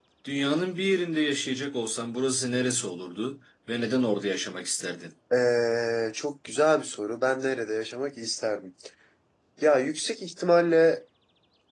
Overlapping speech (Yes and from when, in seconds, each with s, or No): No